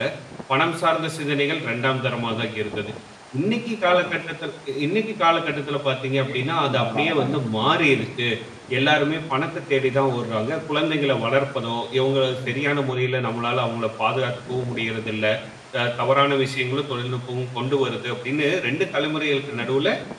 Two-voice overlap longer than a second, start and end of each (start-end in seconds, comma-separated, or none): 6.3-7.8